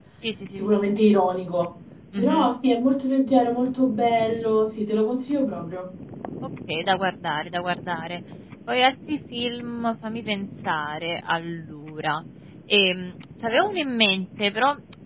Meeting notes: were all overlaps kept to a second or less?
Yes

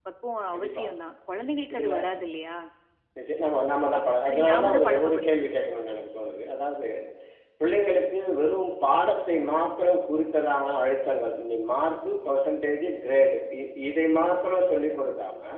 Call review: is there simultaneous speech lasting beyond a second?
Yes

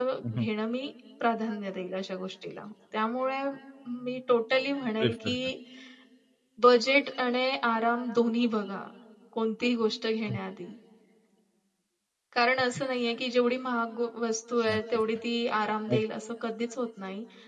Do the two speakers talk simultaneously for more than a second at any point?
No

